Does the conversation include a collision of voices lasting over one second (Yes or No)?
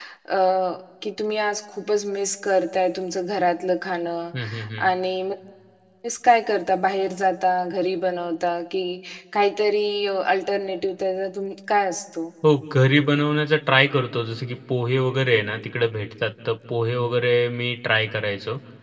No